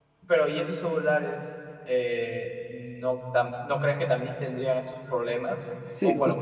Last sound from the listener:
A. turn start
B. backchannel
A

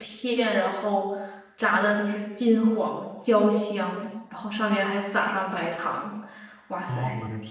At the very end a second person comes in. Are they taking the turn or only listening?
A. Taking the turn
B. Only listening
A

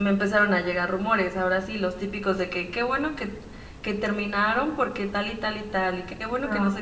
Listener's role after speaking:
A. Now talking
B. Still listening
B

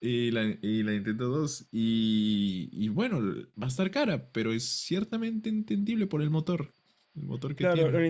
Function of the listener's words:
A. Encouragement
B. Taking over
B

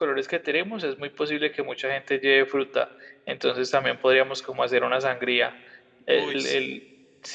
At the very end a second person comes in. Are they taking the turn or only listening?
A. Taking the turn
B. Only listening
B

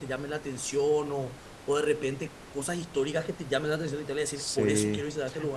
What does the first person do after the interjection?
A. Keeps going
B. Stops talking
B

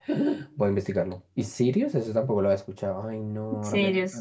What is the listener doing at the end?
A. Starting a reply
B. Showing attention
A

